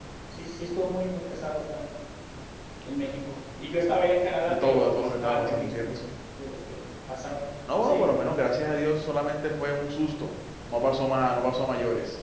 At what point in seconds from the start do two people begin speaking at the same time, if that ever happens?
4 s

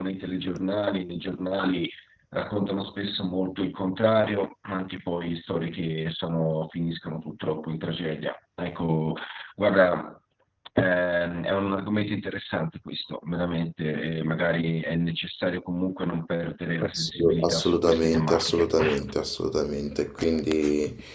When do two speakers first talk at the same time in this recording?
17 s

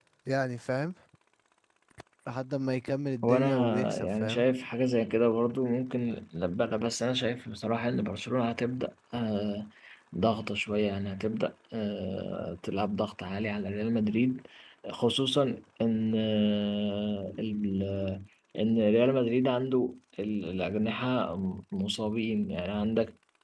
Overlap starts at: 3 s

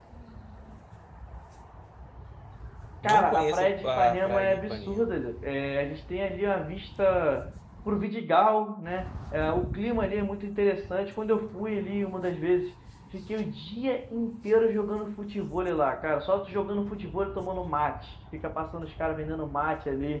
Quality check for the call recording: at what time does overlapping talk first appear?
3 s

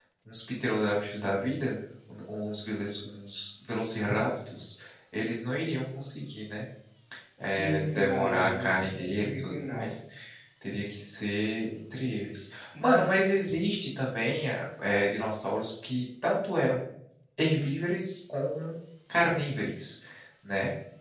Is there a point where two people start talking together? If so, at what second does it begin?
7 s

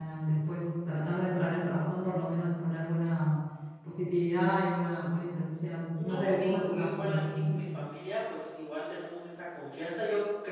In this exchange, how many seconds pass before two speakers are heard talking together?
6 s

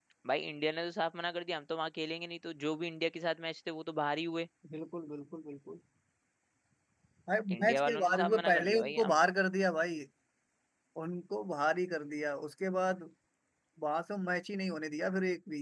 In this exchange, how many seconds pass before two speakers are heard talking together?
8 s

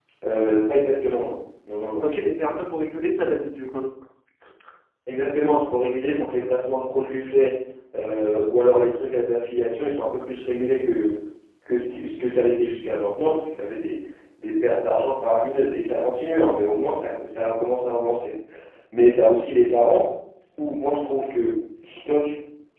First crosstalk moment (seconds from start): none

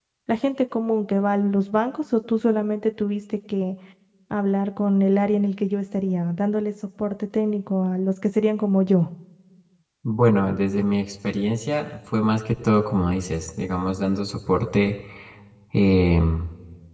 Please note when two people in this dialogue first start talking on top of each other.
none

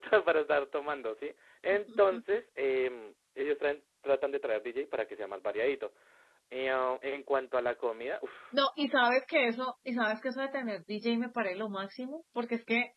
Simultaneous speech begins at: none

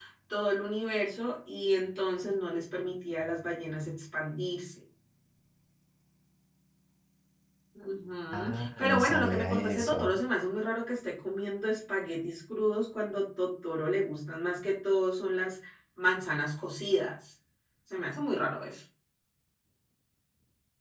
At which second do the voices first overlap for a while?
8 s

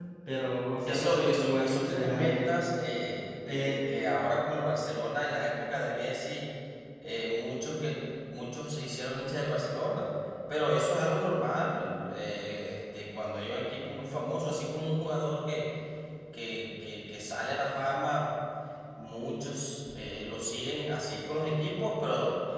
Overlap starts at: 1 s

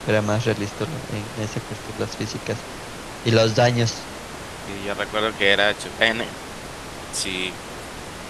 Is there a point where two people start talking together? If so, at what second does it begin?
none

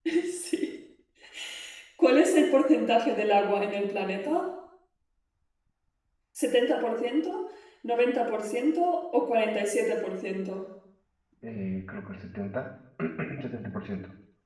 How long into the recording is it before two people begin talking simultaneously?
none

